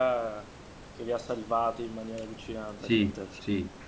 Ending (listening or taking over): taking over